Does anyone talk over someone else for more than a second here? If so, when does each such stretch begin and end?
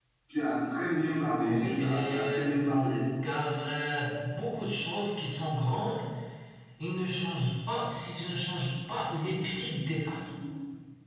1.4-3.0

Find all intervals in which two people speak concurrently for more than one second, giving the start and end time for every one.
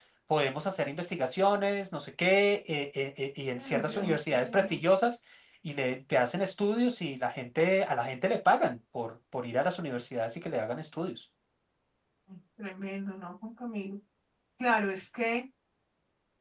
3.6-4.8

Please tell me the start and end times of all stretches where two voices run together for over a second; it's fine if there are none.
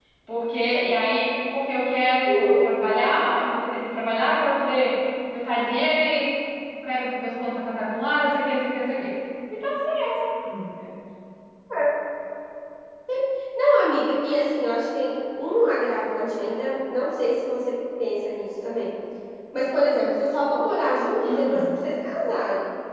none

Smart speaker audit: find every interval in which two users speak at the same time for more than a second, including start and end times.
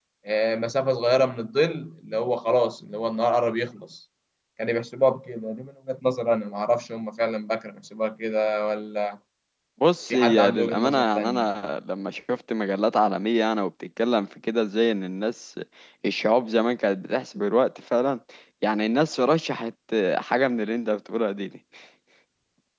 10.1-11.4

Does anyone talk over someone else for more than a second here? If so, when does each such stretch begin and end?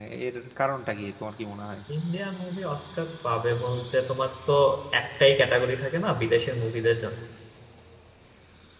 none

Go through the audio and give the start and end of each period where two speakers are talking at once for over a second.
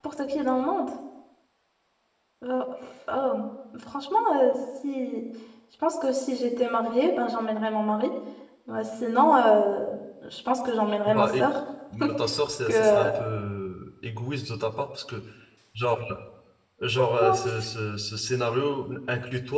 none

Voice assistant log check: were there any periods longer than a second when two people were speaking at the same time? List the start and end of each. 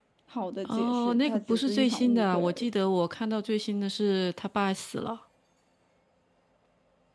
0.6-2.7

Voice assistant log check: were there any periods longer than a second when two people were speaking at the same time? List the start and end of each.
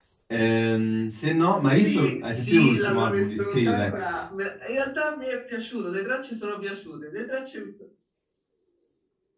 1.7-4.2

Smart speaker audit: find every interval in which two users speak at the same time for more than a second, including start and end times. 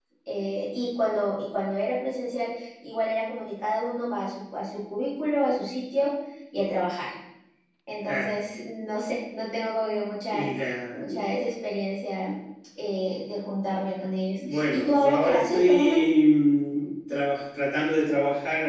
14.5-16.0

